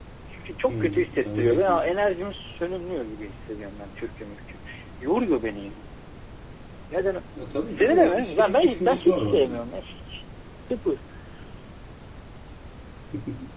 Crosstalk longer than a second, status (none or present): present